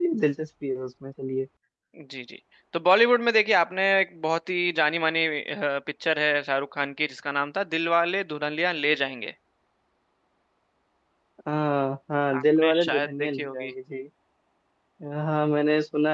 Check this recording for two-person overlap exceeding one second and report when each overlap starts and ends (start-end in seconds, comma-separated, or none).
12.3-13.7